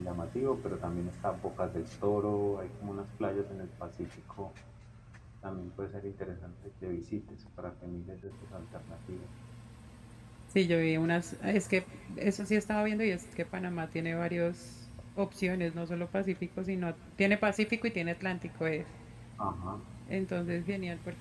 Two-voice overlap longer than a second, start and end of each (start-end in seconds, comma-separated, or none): none